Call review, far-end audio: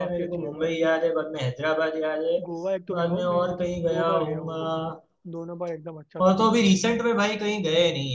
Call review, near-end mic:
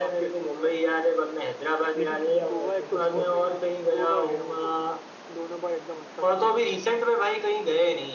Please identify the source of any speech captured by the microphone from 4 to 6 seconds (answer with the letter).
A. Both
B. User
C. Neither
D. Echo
D